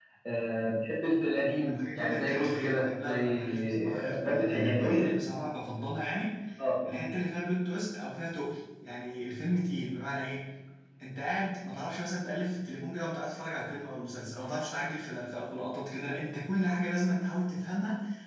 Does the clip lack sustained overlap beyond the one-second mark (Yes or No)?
No